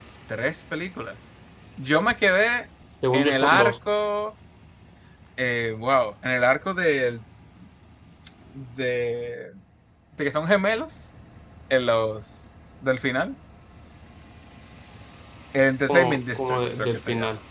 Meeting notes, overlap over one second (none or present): present